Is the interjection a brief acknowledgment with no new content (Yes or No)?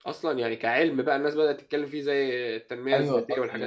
No